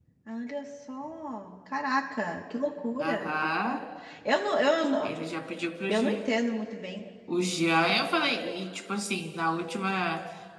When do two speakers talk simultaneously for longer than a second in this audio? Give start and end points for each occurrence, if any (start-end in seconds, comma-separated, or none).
none